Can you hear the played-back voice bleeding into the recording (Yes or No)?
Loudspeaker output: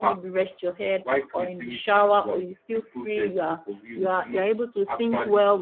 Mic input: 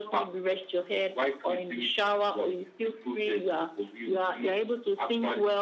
Yes